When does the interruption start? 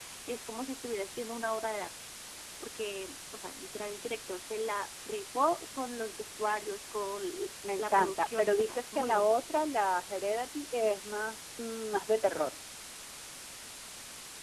7.6 s

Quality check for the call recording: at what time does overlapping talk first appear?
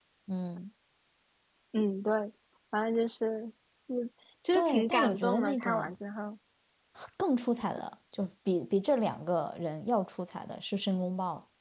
4.5 s

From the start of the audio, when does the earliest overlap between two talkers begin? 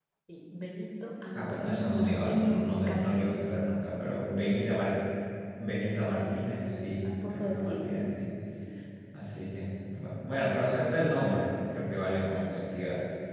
1.3 s

